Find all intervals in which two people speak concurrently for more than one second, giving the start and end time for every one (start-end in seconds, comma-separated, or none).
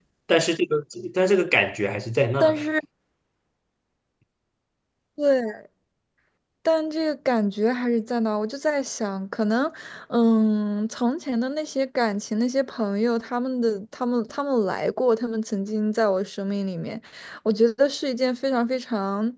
none